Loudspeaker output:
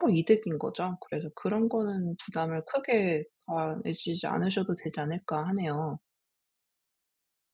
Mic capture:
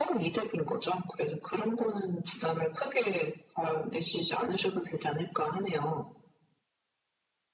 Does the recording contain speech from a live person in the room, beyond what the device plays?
No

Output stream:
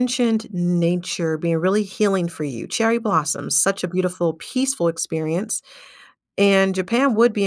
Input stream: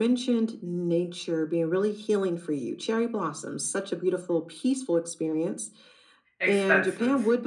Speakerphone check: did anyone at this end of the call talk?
Yes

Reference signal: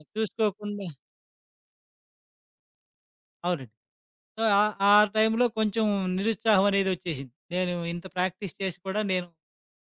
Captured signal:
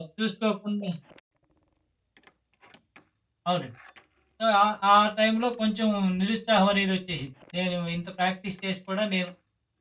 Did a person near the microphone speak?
No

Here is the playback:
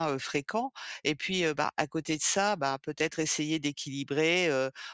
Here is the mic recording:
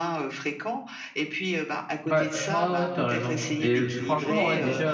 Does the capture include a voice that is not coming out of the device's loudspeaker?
Yes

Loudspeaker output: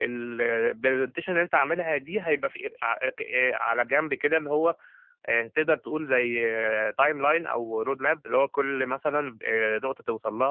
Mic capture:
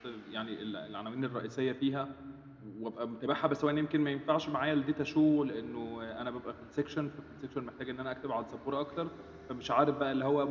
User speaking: Yes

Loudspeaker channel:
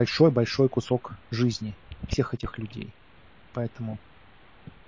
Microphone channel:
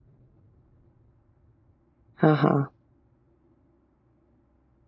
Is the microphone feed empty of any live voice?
No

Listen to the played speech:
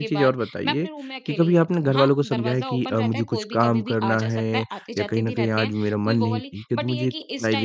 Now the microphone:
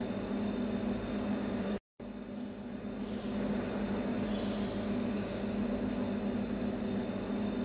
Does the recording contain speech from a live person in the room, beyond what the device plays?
No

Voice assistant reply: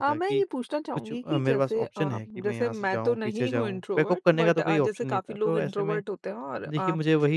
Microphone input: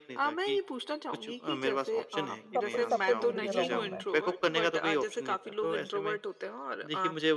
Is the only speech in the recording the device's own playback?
No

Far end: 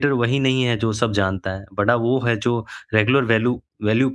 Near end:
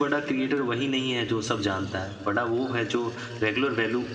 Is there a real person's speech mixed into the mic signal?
No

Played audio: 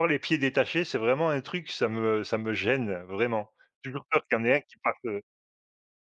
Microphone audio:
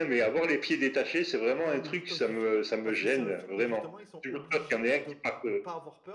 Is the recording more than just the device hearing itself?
Yes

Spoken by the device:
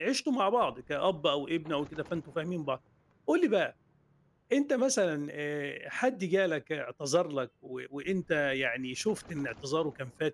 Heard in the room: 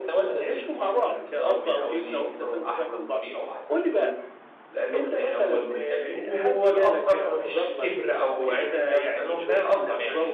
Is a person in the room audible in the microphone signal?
Yes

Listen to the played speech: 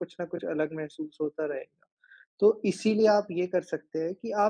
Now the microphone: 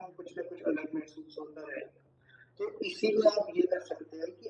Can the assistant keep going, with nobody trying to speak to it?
Yes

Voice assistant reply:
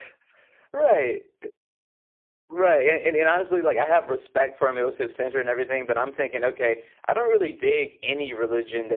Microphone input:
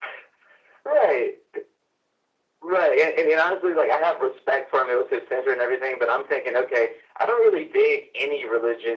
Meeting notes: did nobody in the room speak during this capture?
Yes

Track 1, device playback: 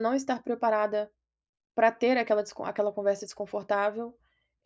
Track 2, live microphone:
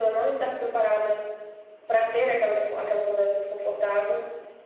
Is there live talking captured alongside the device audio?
No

